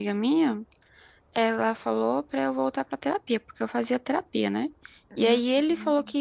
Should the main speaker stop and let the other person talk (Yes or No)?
No